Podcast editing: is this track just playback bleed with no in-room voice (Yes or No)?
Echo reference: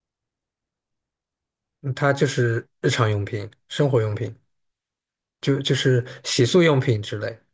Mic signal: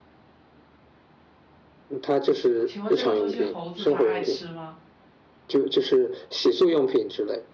No